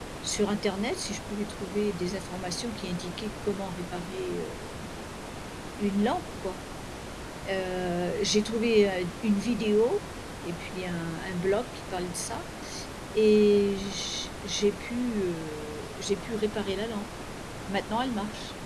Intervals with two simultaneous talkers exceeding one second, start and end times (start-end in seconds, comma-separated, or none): none